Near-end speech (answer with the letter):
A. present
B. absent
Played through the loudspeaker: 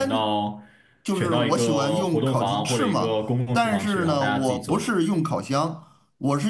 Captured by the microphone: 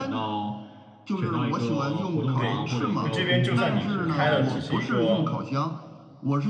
A